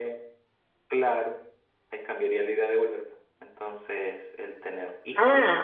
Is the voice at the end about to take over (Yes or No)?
Yes